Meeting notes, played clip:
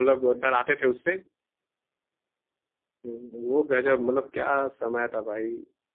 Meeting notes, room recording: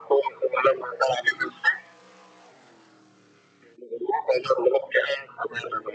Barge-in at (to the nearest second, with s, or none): none